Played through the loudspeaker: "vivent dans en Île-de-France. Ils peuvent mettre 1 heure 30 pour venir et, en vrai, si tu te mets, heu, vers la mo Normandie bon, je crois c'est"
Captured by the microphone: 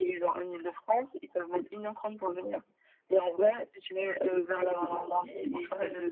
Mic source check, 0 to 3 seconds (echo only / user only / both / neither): echo only